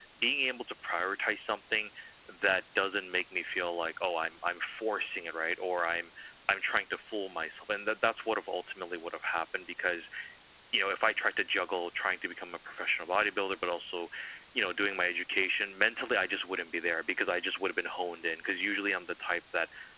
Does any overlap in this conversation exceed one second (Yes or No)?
No